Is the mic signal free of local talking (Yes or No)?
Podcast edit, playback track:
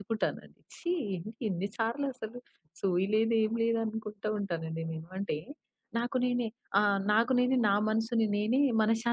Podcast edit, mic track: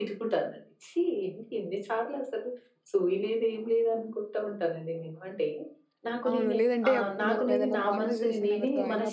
No